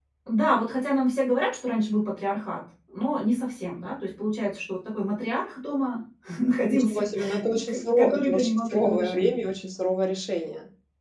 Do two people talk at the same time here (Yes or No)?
Yes